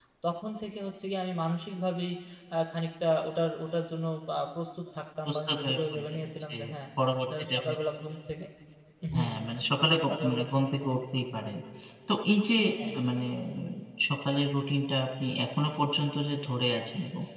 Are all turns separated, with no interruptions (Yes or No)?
No